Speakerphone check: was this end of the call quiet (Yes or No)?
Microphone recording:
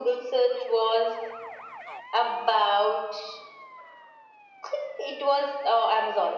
Yes